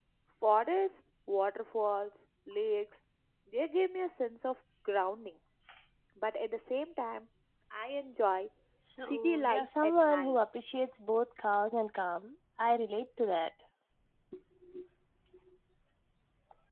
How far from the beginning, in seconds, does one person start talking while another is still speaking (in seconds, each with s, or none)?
9.0 s